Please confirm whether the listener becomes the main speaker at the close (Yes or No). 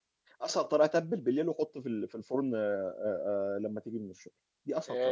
Yes